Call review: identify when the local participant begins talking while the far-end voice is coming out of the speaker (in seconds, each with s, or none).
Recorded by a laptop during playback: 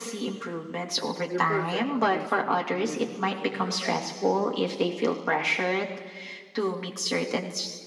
1.2 s